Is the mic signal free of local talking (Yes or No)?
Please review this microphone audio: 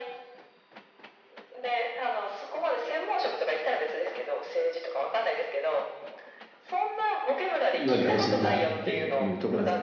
No